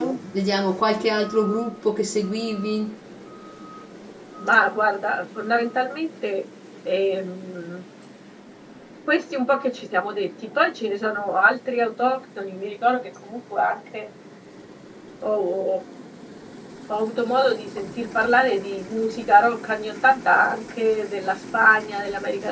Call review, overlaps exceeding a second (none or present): none